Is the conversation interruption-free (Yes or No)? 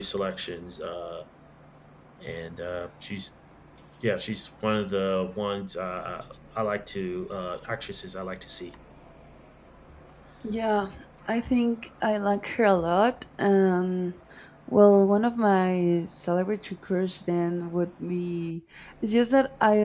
Yes